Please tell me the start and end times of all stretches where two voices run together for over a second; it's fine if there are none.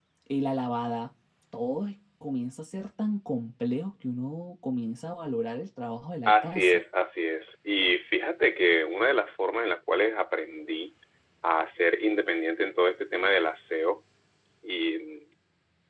none

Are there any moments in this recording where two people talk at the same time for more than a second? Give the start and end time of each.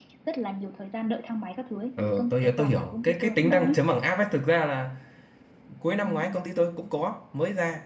2.0-3.8

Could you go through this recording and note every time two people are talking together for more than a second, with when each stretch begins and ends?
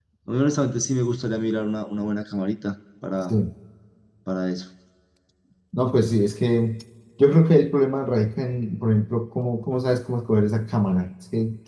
none

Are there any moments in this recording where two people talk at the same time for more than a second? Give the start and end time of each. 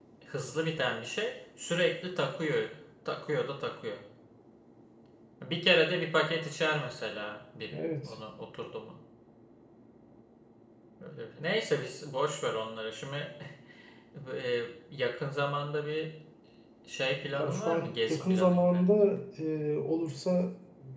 17.4-18.8

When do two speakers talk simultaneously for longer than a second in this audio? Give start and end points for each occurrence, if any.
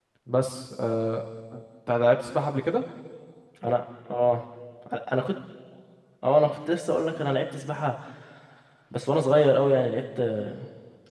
none

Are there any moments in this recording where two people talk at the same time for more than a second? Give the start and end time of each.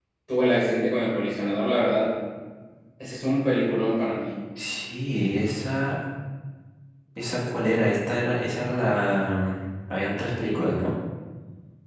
none

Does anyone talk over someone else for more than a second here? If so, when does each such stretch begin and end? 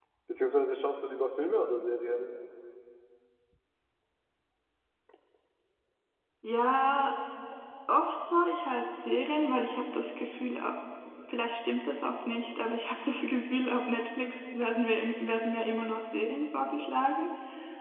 none

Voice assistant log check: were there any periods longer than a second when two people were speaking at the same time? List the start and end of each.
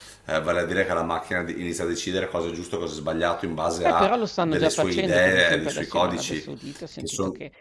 3.8-6.5

